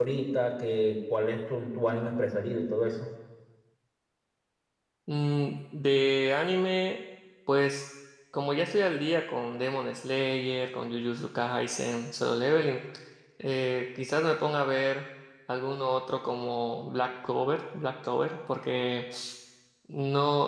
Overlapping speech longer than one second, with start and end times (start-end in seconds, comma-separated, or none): none